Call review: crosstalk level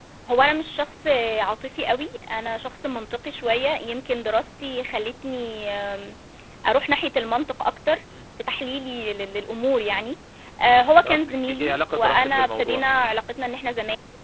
present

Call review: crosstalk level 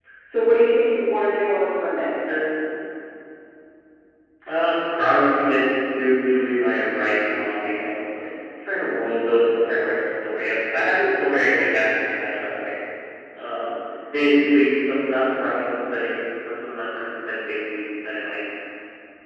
none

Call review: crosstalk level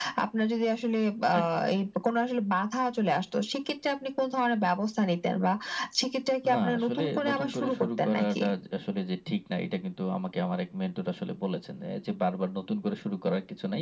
present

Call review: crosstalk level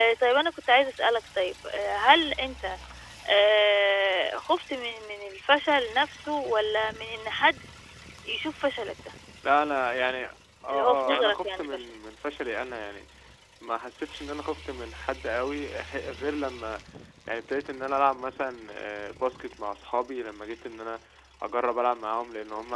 present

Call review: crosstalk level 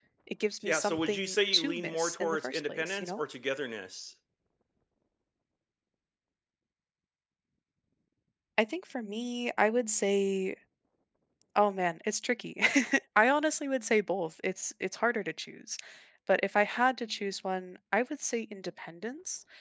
present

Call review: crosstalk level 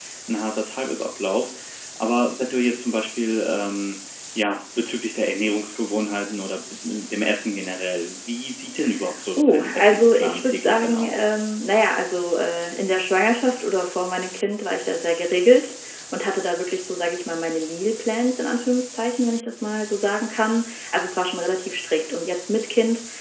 present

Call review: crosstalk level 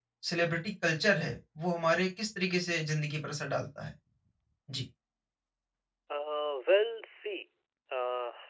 none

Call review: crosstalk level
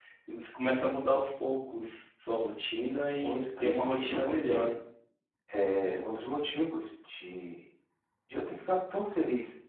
present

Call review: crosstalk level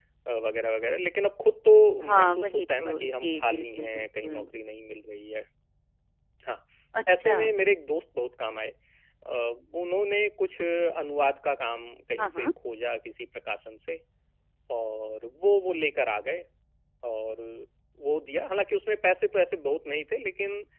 present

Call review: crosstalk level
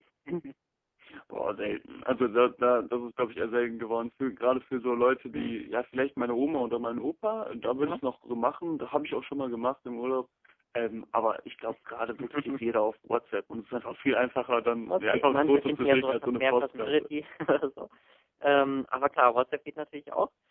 present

